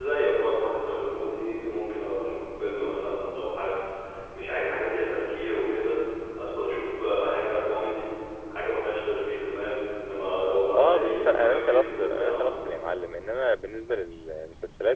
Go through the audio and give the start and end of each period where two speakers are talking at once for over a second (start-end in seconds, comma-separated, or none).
10.8-12.4